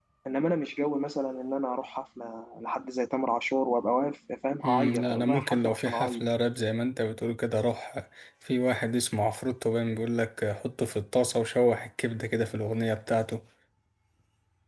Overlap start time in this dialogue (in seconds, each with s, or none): 4.6 s